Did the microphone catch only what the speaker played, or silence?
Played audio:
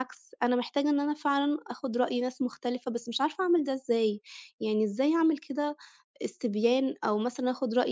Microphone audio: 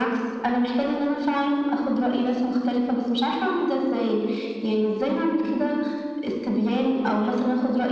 Yes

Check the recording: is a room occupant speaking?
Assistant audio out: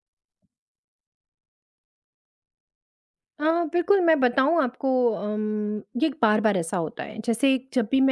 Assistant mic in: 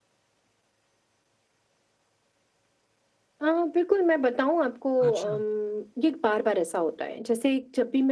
Yes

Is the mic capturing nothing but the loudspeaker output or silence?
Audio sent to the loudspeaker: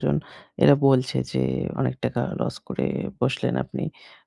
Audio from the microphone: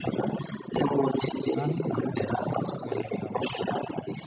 No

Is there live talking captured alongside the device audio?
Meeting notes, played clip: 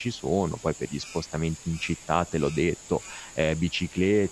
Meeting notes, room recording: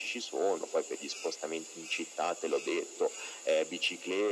No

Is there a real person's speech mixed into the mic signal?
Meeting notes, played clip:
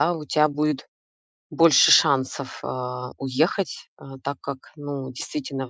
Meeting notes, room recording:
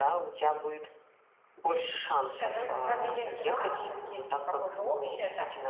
Yes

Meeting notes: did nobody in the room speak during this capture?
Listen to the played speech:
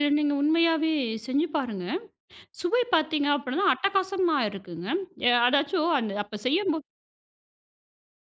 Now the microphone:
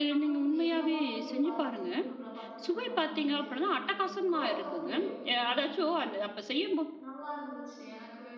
No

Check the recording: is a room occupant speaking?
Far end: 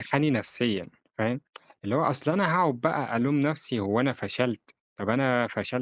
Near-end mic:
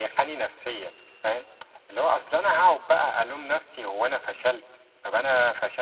No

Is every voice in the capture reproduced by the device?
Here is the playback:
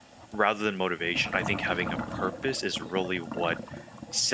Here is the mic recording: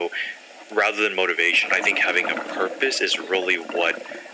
Yes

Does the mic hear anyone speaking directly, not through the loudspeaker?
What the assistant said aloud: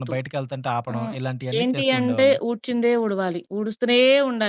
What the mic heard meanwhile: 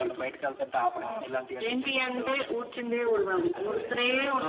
Yes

